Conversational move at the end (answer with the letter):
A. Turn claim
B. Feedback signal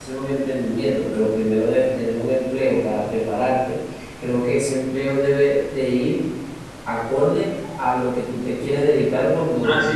A